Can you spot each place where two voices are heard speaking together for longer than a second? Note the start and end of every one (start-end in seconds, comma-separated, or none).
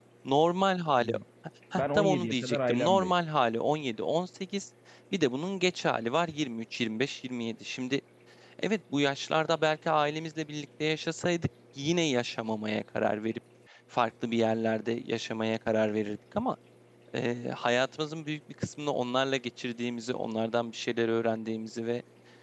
1.7-3.1